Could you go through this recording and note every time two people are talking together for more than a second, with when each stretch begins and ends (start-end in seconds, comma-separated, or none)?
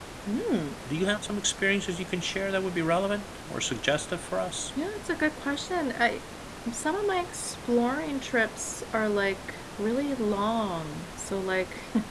none